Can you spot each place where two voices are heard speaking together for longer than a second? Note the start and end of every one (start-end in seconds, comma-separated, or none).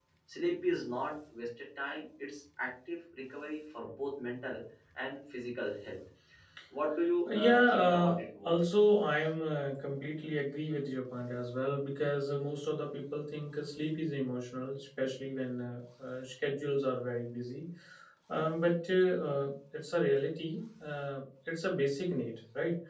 7.3-8.6